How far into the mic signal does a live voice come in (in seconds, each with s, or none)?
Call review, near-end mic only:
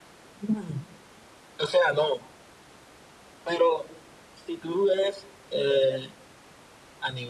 none